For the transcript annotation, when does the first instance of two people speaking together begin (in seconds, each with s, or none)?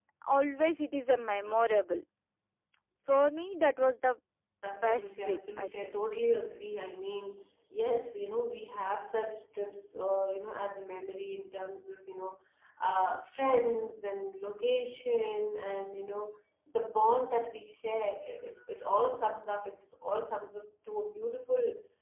4.7 s